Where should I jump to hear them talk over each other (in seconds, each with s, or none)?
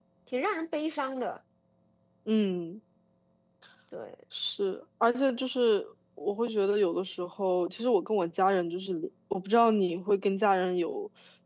none